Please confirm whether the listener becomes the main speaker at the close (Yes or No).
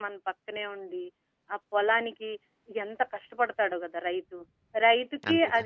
No